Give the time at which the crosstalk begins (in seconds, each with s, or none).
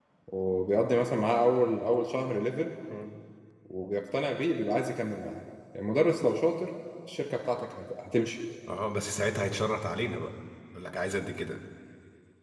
none